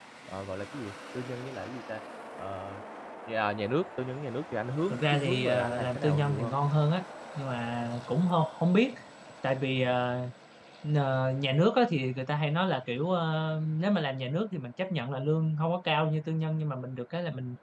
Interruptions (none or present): present